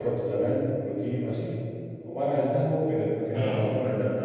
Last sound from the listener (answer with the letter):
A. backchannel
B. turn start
A